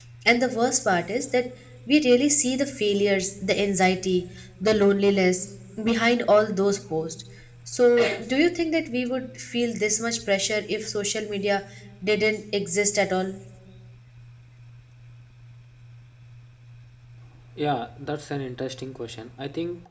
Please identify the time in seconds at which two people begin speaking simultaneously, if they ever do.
none

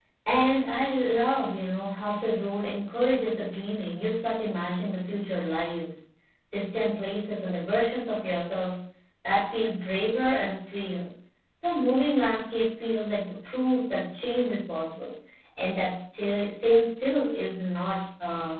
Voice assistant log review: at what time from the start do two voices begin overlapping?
none

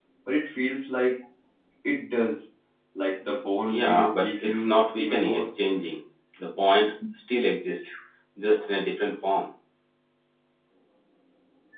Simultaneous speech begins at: 3.6 s

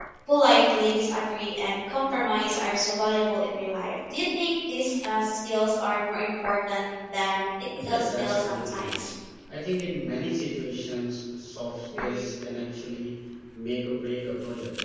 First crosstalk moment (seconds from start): 7.7 s

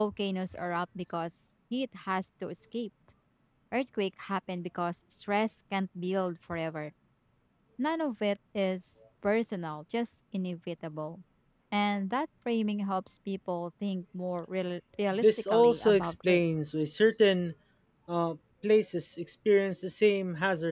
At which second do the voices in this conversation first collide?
15.1 s

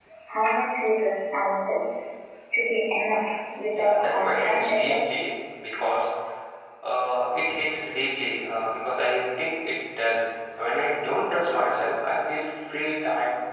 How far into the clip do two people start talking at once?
3.7 s

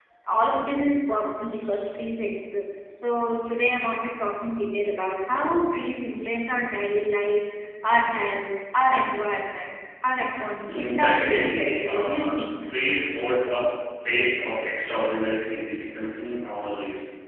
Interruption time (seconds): 10.6 s

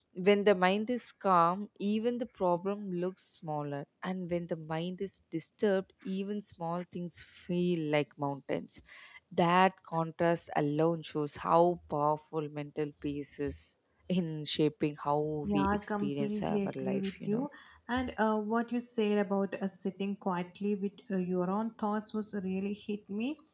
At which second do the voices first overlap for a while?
15.4 s

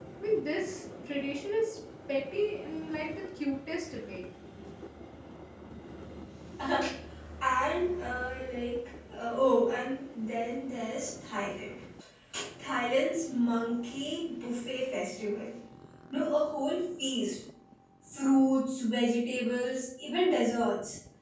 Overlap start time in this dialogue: none

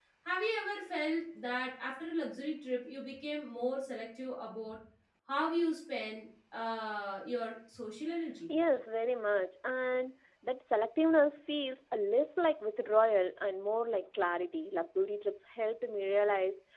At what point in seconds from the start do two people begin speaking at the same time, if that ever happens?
none

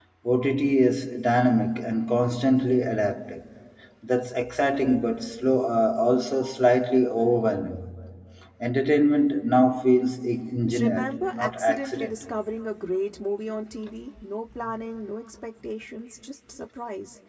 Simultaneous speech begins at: 10.7 s

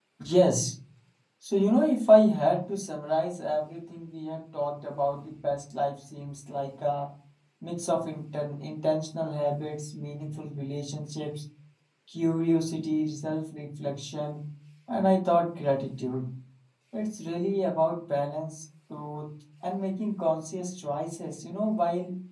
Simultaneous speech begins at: none

